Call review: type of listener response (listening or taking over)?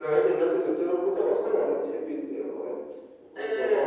taking over